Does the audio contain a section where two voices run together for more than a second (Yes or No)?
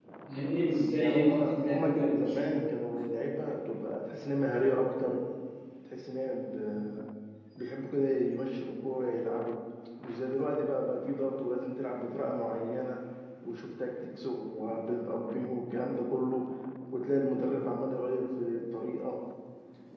Yes